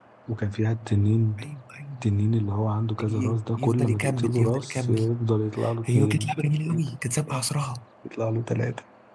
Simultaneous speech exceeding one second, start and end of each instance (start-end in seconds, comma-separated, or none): 3.1-5.0